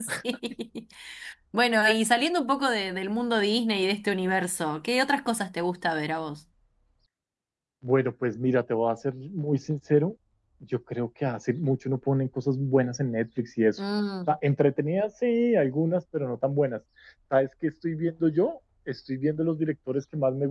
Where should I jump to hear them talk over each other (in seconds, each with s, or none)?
none